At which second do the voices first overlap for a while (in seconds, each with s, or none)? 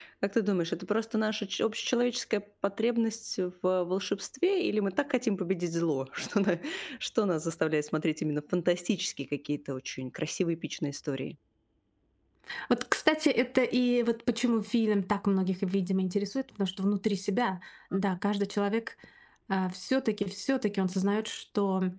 none